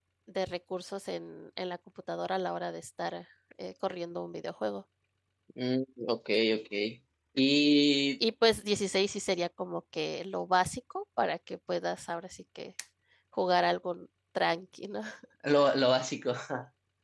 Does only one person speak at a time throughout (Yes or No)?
Yes